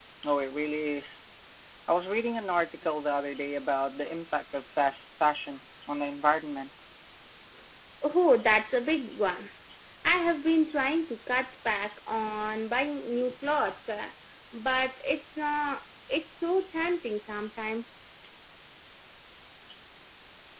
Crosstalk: none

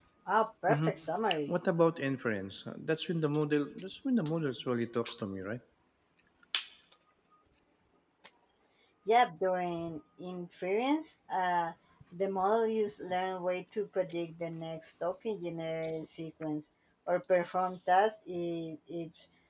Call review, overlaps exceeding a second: none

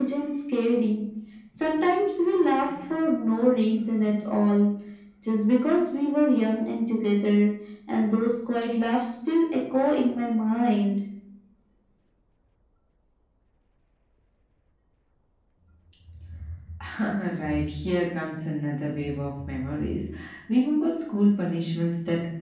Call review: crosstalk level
none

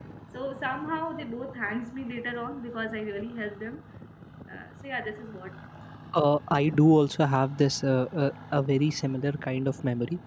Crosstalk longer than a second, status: none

